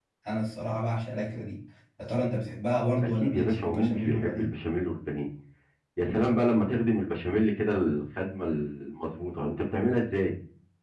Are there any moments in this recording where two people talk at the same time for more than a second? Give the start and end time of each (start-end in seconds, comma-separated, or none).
3.0-4.5